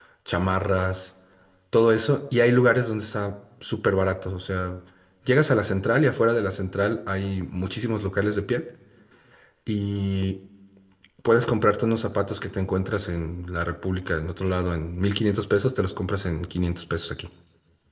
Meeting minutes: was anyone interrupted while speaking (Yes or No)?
No